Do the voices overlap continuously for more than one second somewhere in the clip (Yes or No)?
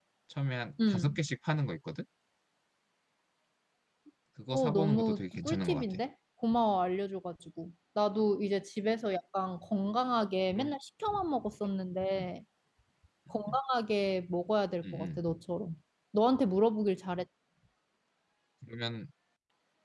Yes